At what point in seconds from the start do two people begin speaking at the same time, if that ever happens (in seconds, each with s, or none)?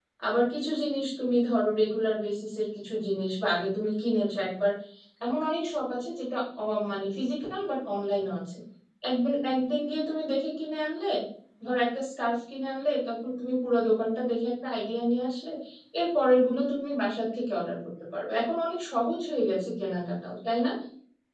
none